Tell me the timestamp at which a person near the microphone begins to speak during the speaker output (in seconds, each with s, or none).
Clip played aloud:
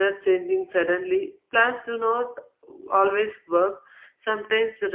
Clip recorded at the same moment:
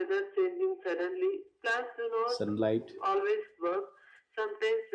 2.2 s